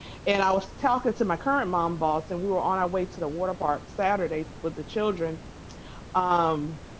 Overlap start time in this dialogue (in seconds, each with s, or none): none